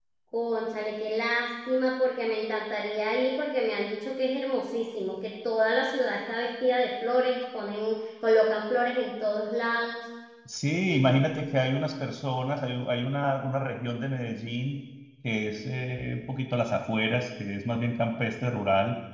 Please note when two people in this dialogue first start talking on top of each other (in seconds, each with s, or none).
none